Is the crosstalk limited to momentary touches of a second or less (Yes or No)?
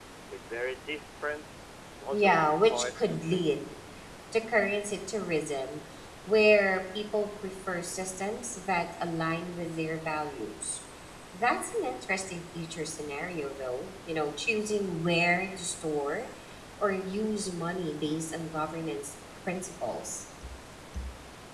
No